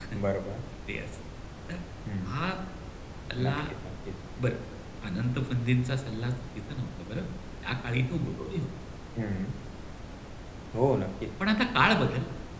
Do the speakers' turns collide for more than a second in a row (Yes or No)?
No